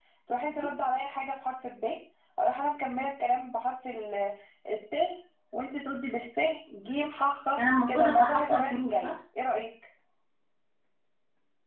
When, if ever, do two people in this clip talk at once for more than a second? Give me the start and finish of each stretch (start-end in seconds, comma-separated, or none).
7.9-9.1